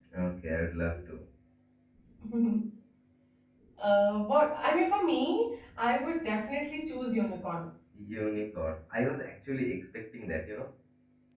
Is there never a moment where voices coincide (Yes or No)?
Yes